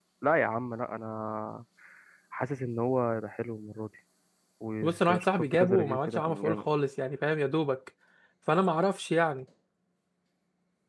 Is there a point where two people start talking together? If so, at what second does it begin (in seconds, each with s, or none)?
4.8 s